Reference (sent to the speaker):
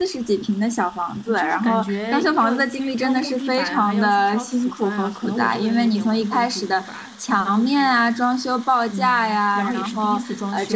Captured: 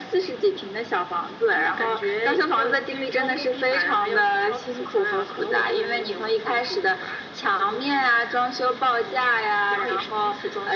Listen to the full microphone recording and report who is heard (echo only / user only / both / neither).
echo only